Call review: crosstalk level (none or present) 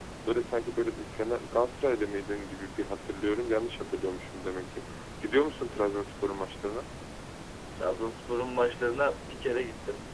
none